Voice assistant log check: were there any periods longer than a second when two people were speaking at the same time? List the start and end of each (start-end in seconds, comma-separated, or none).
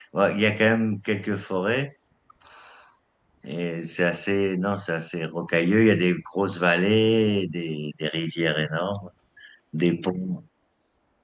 none